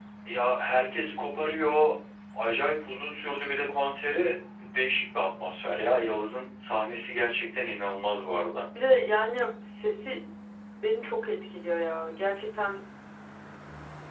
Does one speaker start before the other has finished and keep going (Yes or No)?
No